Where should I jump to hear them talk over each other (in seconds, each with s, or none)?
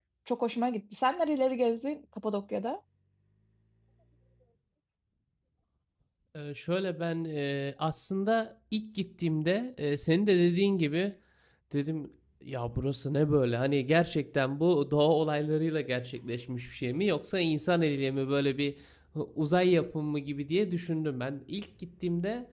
none